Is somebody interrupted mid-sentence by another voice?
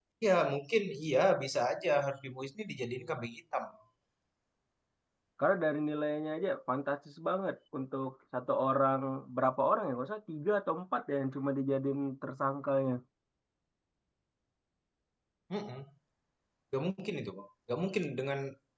No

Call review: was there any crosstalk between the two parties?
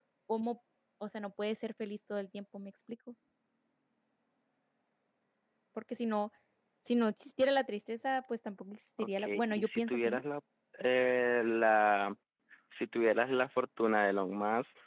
Yes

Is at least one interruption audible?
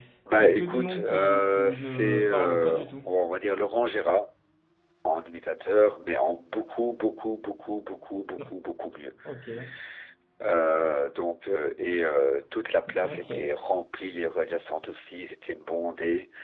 Yes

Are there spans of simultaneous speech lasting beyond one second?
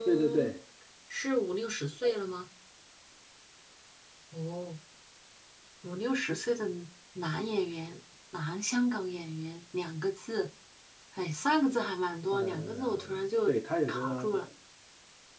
Yes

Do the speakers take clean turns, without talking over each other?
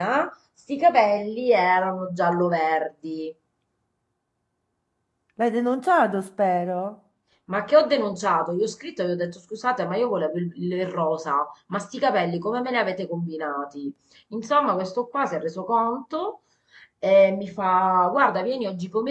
Yes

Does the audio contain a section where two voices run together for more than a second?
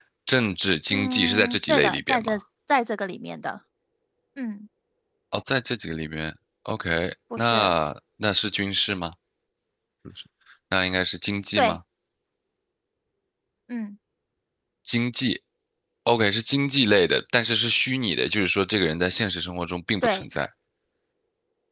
Yes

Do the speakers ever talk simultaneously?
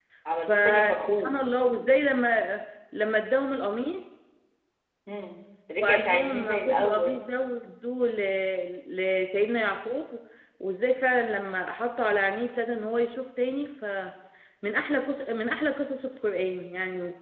Yes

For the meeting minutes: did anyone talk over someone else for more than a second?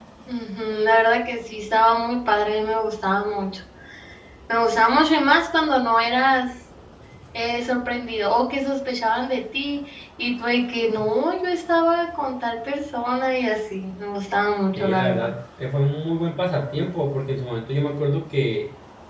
No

